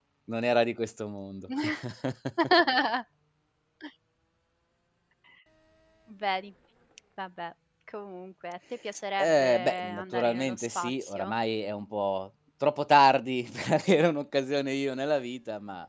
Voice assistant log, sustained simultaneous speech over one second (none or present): present